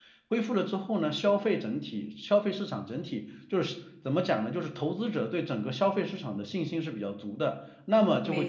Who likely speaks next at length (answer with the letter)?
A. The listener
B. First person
B